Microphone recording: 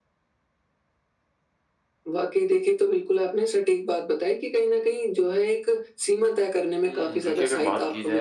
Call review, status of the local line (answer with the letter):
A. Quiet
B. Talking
B